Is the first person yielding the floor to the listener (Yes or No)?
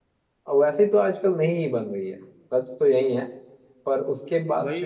Yes